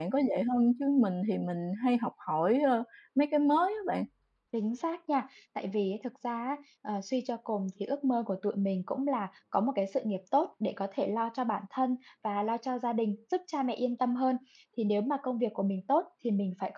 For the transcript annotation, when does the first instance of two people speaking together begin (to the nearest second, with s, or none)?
none